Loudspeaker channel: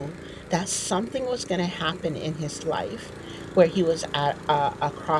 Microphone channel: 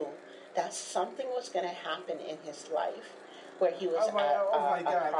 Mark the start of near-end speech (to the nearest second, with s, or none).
4 s